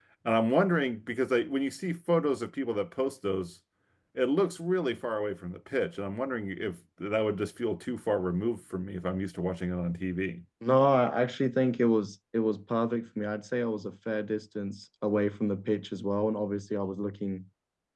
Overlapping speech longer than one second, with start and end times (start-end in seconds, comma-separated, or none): none